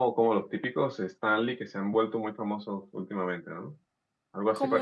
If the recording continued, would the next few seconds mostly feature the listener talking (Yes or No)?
Yes